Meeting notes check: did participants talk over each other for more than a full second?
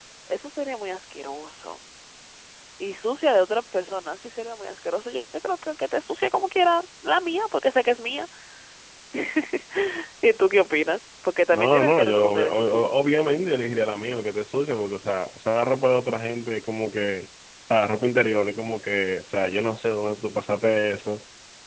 Yes, from 11.5 s

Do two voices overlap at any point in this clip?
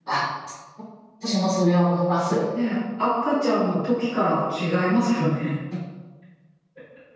No

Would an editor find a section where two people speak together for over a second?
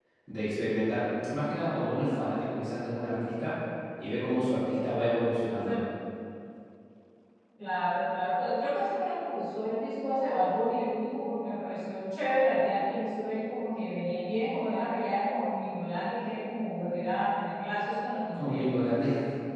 No

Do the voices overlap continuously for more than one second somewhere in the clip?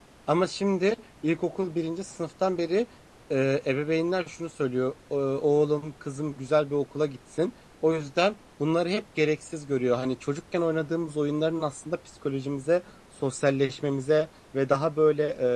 No

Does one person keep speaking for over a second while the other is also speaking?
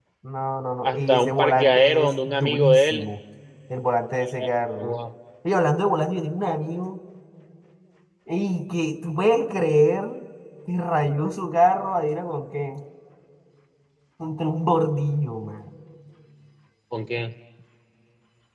Yes, from 0.8 s

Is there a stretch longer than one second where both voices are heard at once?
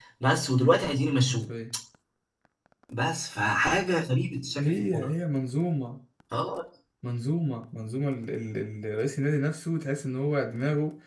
No

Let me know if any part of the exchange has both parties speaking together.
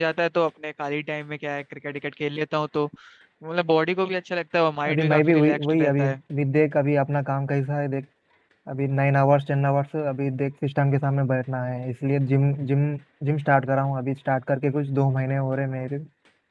Yes, from 4.8 s

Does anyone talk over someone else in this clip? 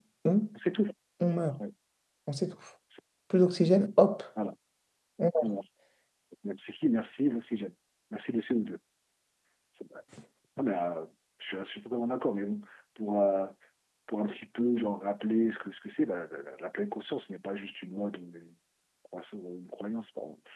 No

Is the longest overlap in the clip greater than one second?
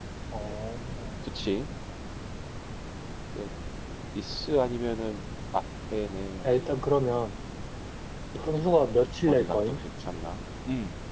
No

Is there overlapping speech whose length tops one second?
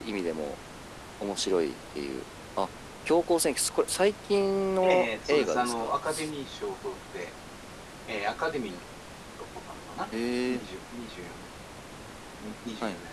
Yes, from 4.8 s

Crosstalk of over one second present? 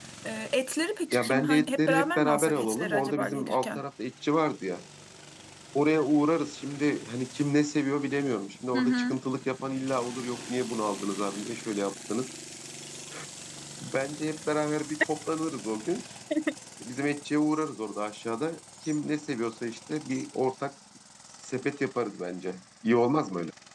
Yes, from 1.1 s

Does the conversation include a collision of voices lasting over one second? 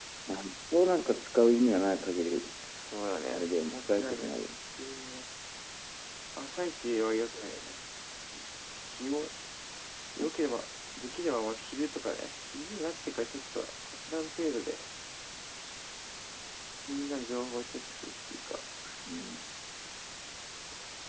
Yes, from 3.3 s

